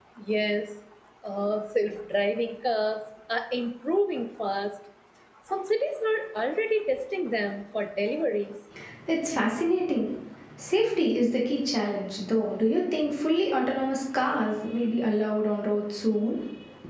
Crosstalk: none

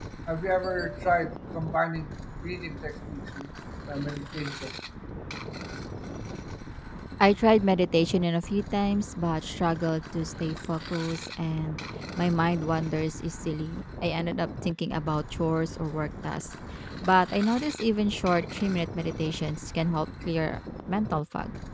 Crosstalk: none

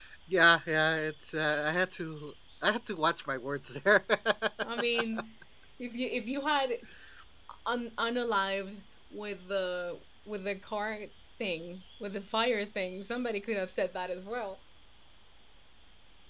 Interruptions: none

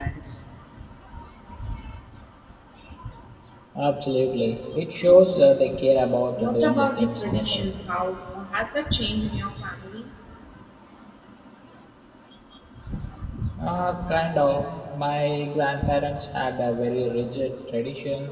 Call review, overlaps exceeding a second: present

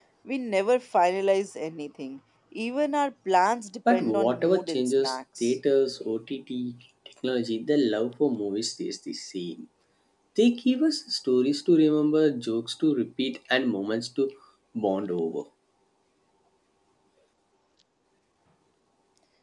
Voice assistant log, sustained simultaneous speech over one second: present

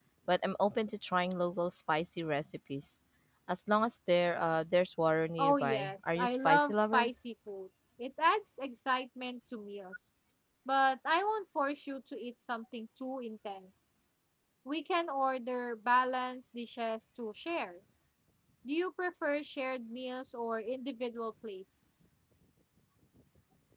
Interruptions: present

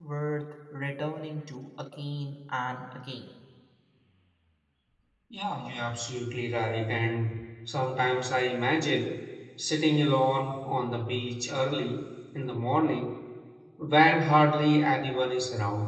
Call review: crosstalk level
none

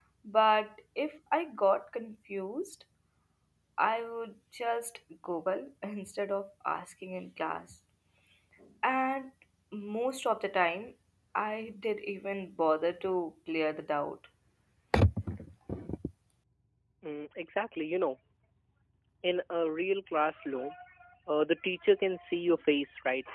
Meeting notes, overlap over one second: none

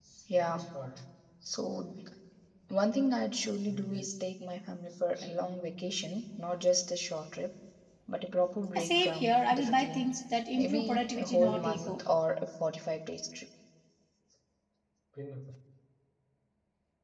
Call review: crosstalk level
present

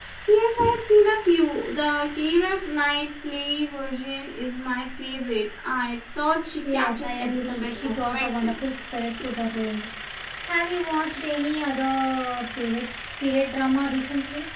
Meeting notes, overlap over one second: present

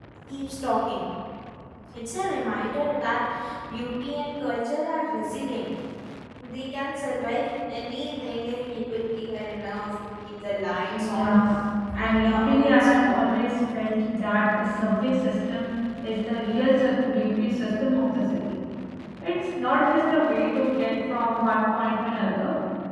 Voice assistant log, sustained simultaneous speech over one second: present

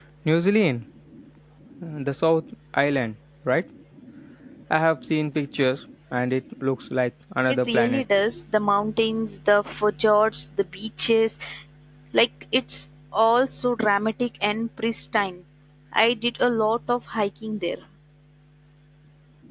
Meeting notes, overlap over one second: none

